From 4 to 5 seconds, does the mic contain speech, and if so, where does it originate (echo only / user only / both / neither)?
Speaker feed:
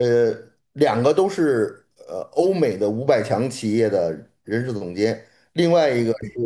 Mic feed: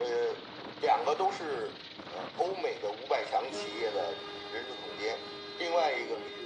echo only